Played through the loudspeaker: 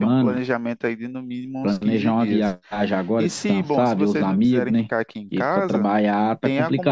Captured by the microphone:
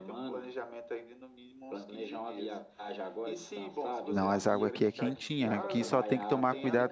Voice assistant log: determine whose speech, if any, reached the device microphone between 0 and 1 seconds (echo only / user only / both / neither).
echo only